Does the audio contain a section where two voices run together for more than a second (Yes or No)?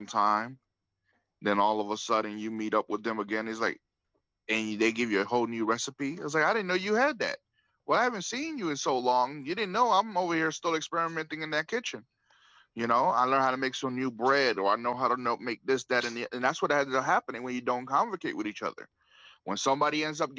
No